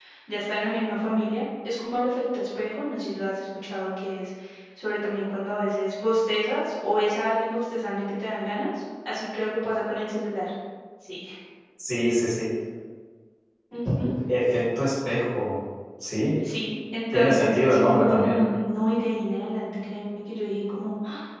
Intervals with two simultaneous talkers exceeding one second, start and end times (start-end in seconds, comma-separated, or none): 17.1-18.4